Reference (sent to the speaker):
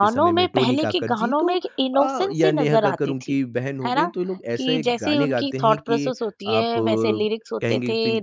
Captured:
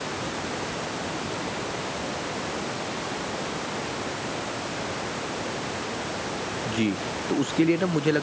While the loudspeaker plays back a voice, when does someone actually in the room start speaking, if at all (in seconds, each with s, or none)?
6.7 s